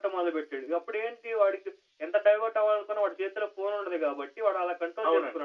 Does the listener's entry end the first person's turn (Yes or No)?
Yes